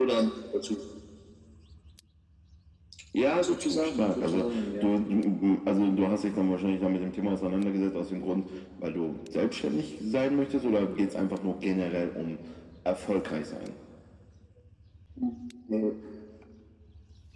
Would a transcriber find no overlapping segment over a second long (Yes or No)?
No